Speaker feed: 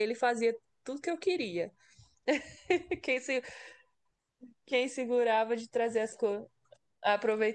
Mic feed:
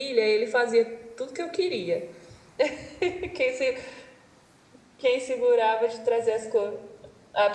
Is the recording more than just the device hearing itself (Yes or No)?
No